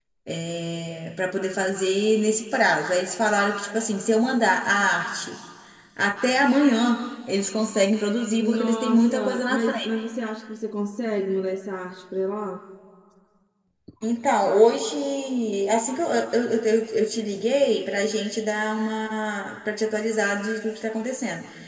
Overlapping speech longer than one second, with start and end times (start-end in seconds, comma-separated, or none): 8.4-9.9